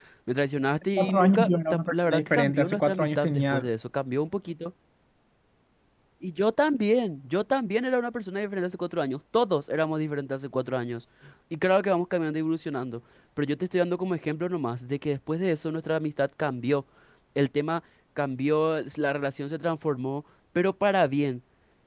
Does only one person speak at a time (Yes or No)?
No